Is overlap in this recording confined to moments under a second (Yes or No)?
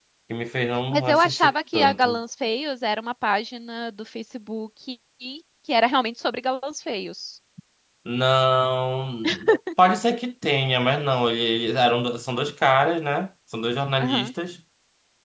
No